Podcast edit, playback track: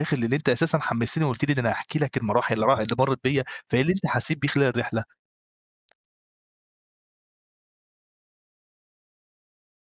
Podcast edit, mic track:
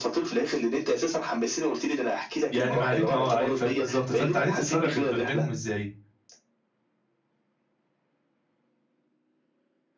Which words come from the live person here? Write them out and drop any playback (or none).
يعني ما عار ما هو عار آه بالضبط فأنت عرفت تفرق ب بينهم إزاي؟